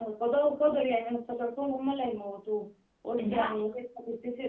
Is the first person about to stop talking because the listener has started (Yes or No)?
No